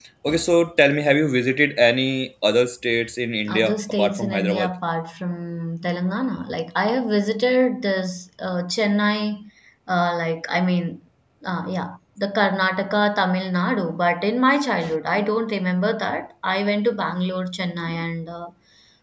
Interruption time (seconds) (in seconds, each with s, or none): 3.4 s